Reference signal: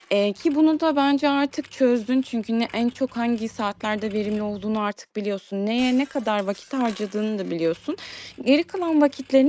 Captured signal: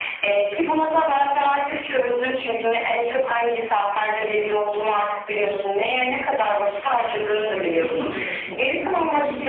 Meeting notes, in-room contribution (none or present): present